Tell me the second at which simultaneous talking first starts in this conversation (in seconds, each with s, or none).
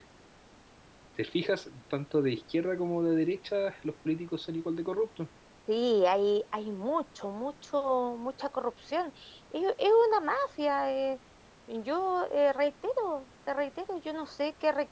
none